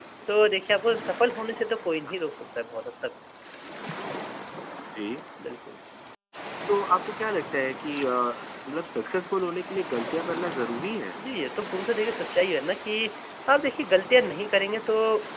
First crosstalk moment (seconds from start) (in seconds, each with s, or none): none